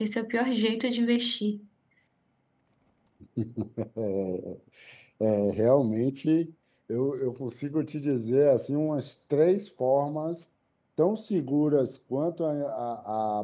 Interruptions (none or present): none